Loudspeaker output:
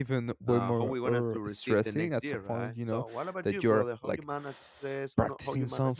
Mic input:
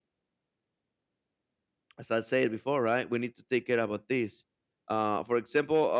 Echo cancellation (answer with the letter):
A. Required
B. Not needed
B